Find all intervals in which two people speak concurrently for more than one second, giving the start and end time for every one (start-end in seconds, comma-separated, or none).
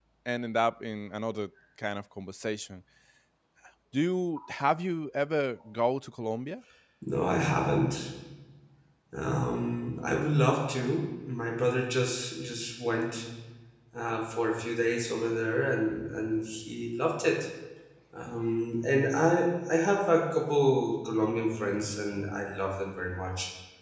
none